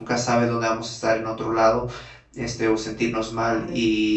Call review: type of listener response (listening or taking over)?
listening